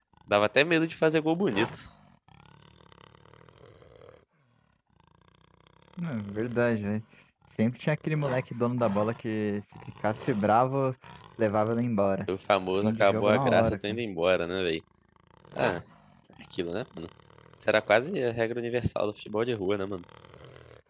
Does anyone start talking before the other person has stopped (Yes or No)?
Yes